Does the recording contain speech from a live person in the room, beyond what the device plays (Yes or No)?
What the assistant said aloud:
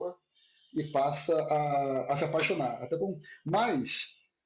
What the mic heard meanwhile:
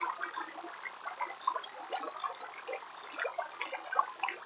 No